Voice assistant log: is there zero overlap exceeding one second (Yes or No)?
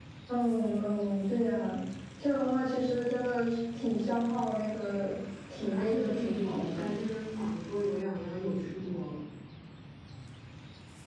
No